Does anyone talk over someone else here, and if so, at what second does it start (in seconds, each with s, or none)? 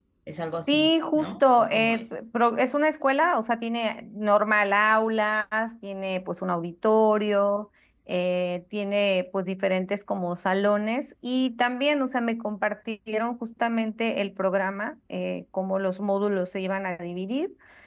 0.7 s